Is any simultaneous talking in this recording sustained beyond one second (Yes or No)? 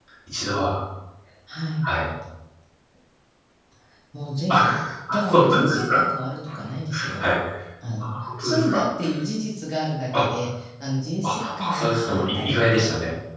Yes